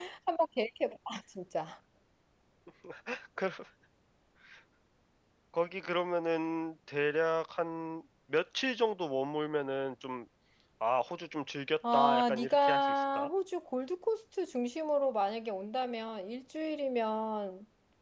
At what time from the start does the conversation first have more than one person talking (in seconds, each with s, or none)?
11.8 s